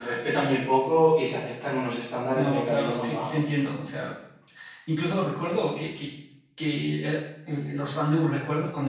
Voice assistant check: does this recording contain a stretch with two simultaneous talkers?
Yes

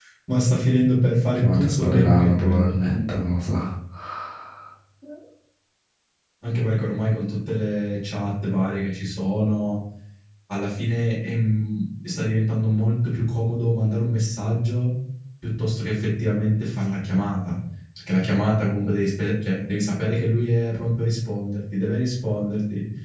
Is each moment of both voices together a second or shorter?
No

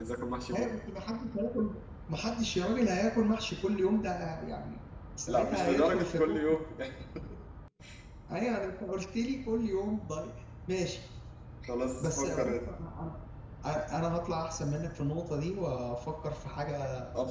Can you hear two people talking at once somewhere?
Yes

